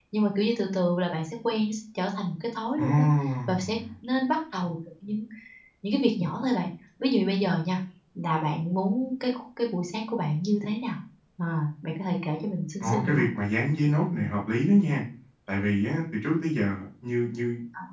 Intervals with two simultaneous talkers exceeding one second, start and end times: none

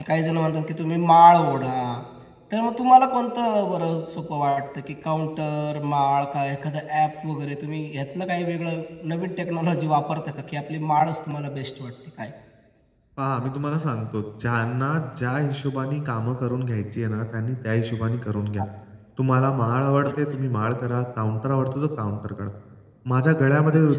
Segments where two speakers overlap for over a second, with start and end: none

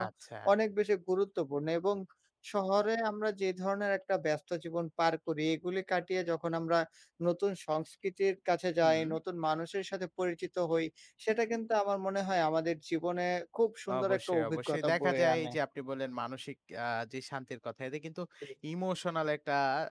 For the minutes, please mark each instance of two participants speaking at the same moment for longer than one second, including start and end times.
14.0-15.5

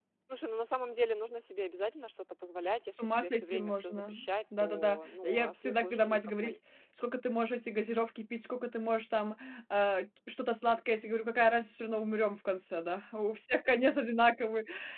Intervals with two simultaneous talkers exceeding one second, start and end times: 2.9-4.1, 4.6-6.5

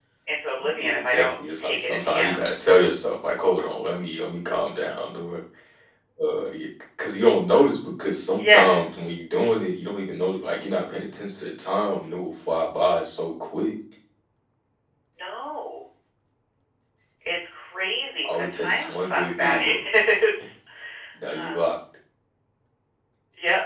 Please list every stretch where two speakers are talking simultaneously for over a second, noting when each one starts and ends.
0.8-2.5, 18.2-19.6

